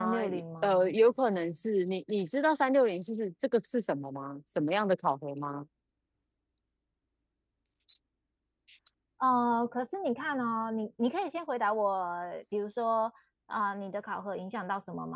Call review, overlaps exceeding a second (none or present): none